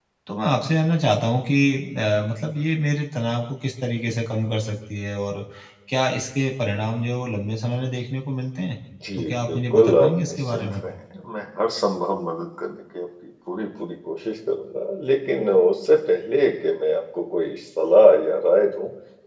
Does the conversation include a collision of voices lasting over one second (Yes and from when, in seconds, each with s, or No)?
Yes, from 9.0 s